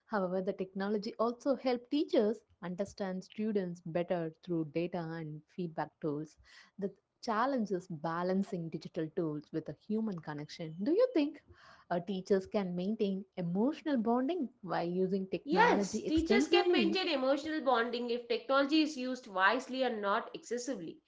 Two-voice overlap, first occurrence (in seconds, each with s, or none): 15.4 s